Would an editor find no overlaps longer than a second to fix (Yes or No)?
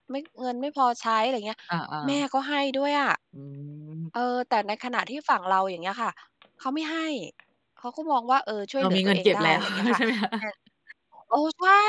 No